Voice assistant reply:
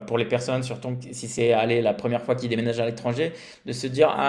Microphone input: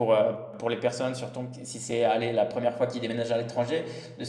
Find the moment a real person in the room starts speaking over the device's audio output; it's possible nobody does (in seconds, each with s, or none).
none